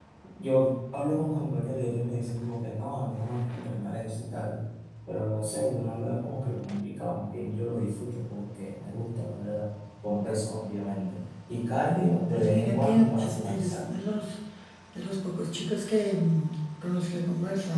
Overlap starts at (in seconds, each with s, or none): 12.3 s